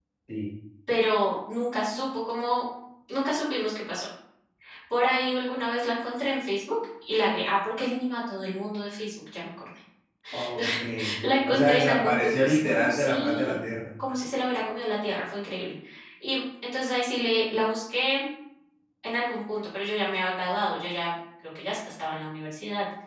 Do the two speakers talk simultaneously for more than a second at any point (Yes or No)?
Yes